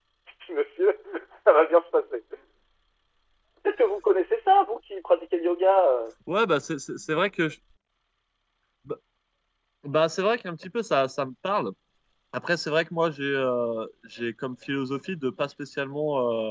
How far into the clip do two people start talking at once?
none

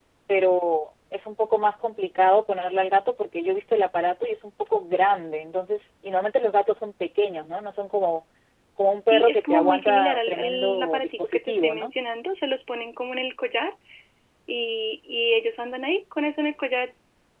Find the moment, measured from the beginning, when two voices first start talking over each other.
9.1 s

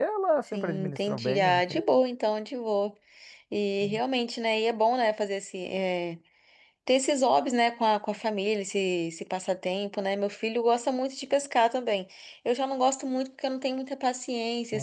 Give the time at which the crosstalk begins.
0.5 s

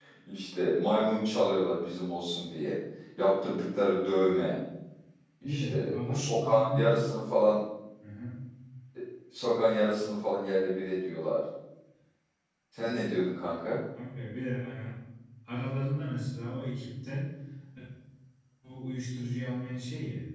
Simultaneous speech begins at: 5.4 s

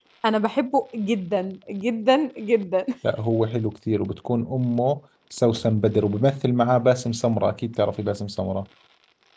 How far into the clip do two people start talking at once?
none

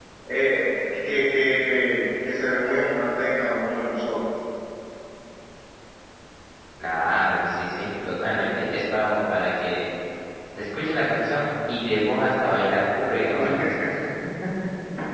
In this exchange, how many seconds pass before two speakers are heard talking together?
none

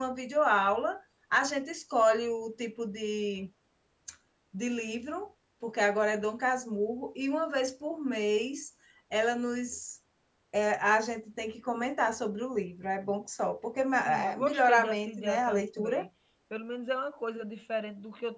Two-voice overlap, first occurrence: 14.1 s

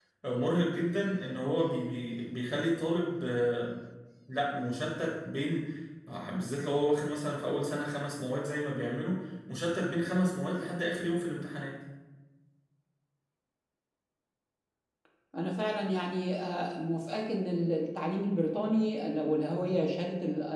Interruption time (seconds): none

